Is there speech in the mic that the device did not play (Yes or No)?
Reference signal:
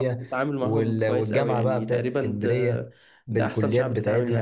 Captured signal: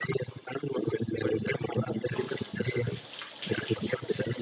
No